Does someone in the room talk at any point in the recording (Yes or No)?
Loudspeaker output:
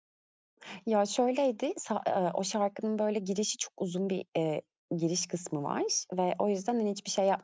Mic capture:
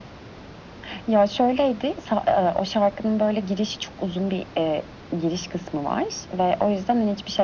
No